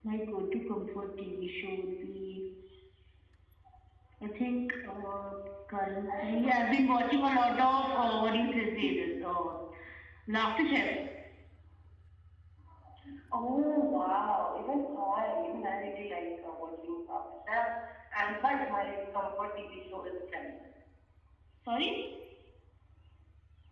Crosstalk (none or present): none